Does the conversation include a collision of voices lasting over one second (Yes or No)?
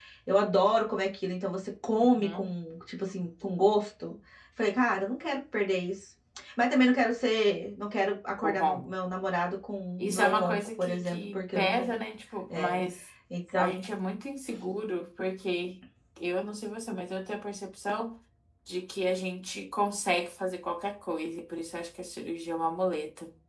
Yes